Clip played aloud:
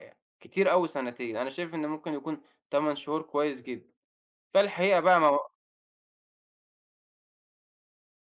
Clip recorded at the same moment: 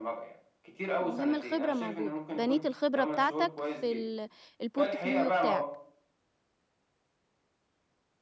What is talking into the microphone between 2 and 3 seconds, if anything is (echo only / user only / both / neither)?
both